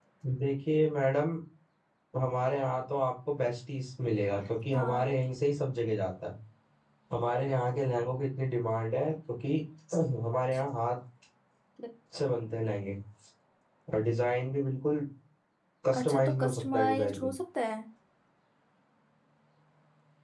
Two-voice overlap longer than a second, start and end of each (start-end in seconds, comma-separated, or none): 16.0-17.3